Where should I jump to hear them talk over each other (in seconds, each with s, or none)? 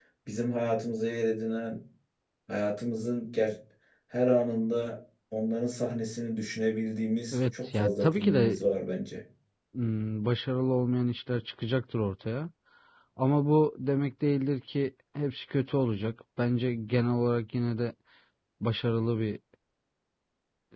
7.3 s